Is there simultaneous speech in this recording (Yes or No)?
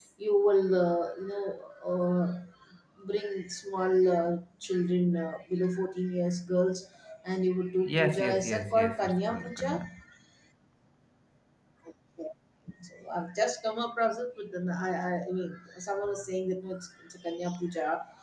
Yes